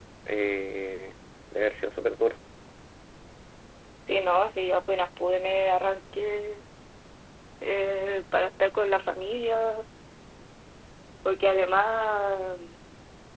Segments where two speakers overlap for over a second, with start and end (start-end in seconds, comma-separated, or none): none